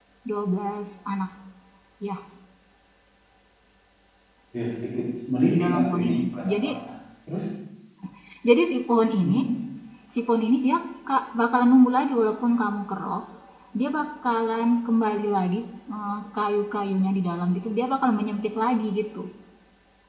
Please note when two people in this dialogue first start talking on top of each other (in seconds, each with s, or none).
5.5 s